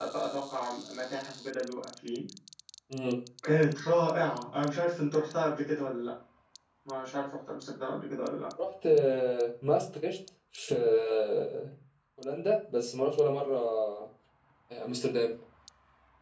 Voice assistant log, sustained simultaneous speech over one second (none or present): none